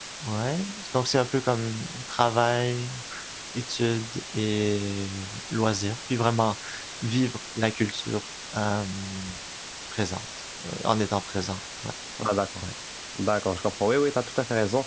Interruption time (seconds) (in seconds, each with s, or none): none